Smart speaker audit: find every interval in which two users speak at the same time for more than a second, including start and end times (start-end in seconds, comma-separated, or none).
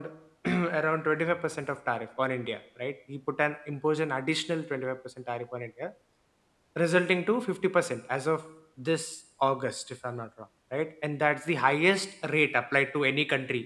none